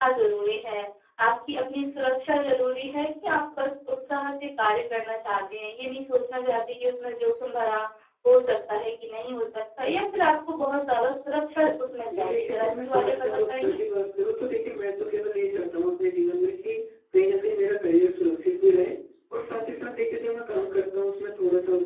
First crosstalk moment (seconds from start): 12.1 s

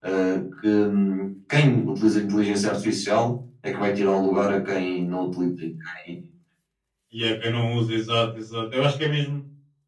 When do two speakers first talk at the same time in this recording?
none

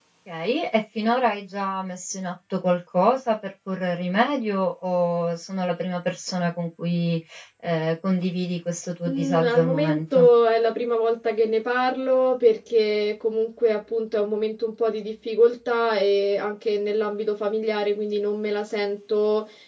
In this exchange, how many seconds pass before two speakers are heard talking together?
9.0 s

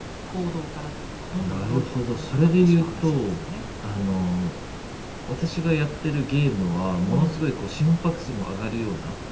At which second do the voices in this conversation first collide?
1.4 s

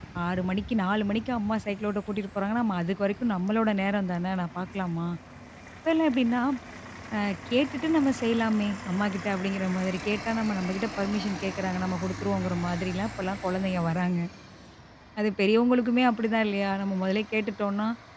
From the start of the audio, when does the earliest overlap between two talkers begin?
none

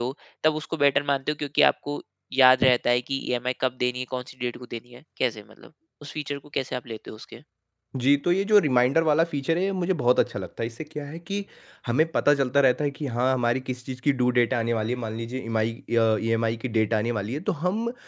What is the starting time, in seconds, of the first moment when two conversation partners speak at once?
none

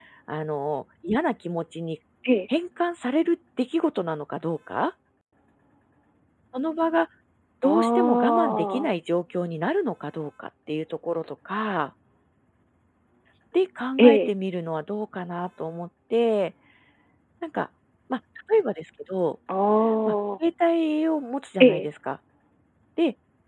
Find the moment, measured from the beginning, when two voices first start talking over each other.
7.6 s

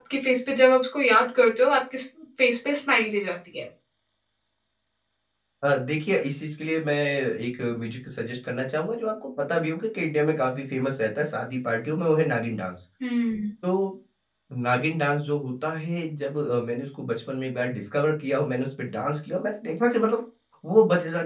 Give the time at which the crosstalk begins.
none

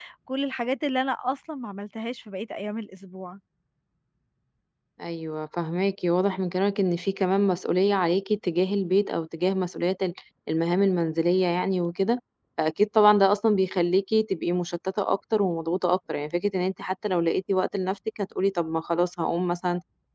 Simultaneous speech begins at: none

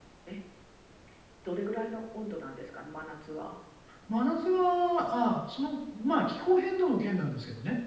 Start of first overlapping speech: none

